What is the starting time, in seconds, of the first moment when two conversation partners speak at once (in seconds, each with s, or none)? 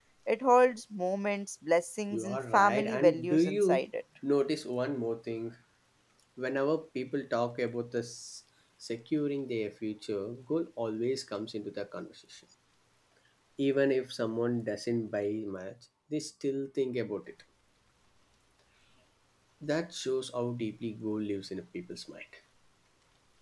2.1 s